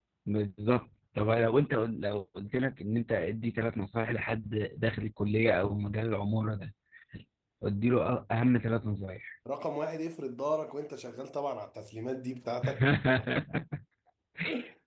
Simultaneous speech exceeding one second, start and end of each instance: none

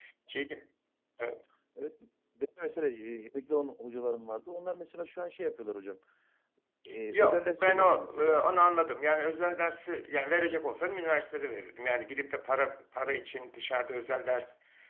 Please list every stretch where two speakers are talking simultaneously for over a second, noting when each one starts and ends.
7.1-8.4

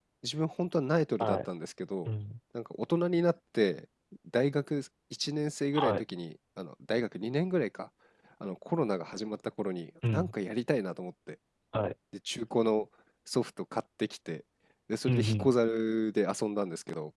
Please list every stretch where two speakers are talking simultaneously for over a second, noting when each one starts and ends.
none

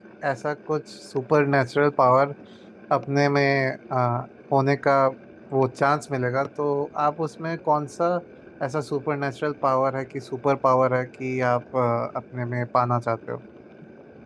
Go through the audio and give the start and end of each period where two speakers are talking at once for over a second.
none

